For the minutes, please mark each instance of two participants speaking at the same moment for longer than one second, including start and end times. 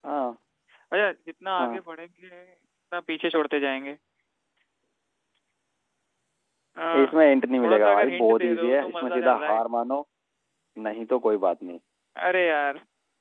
7.6-9.6

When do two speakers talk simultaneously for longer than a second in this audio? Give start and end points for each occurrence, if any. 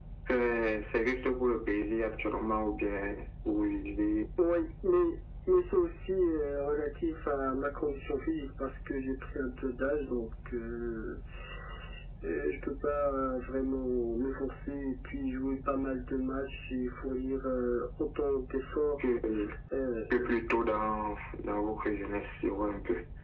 none

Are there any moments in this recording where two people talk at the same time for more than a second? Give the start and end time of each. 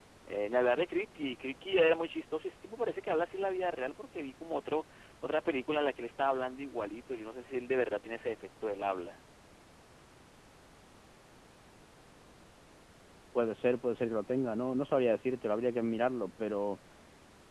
none

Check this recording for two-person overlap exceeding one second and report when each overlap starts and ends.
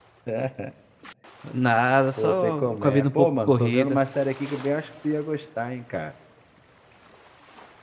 2.2-4.0

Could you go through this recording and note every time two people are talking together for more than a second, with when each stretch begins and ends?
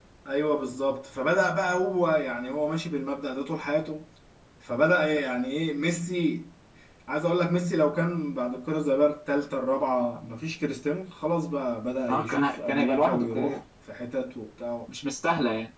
12.1-13.6

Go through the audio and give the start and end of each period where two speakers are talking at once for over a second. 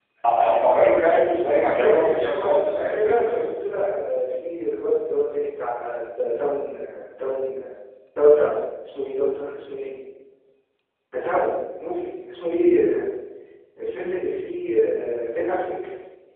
1.7-3.4

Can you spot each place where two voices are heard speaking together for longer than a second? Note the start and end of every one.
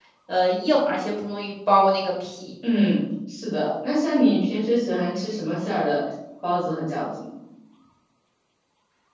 none

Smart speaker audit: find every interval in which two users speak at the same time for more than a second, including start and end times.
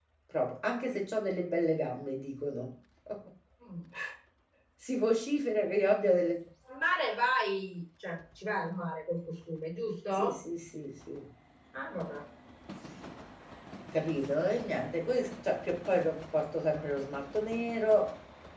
none

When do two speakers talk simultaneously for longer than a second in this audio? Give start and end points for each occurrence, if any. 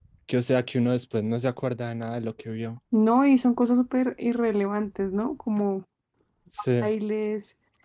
none

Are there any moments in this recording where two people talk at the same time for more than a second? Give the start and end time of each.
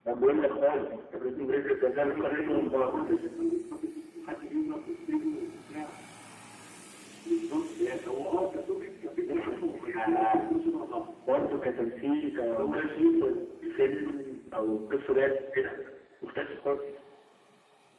2.0-3.3, 9.3-10.5, 12.5-14.2

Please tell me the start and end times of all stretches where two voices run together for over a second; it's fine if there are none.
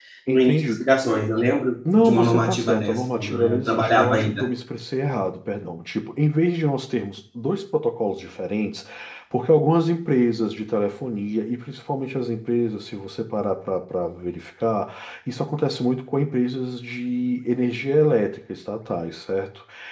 1.9-4.5

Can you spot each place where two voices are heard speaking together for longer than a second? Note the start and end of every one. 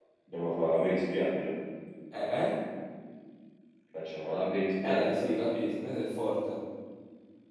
none

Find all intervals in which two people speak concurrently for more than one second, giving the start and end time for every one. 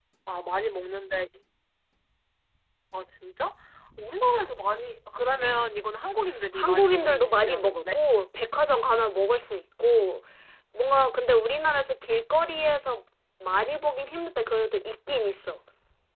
6.5-8.0

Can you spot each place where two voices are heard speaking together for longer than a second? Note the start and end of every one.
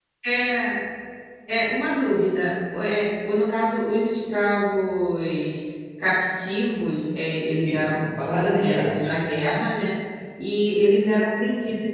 7.7-9.2

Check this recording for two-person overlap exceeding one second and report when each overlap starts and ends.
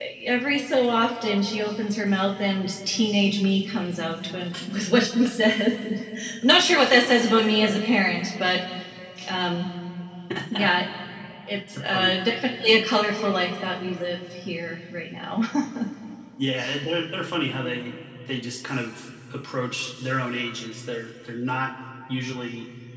none

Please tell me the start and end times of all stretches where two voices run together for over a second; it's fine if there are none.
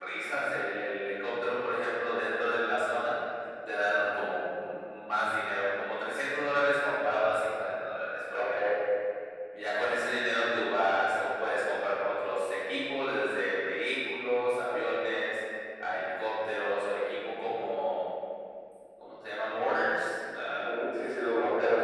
none

